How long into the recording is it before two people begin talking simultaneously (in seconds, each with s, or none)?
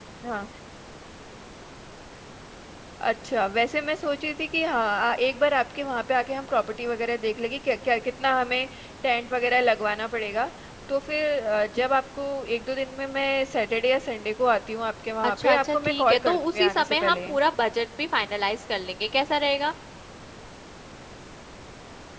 15.2 s